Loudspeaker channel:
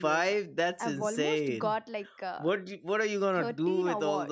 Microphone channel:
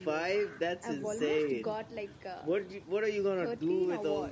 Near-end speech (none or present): none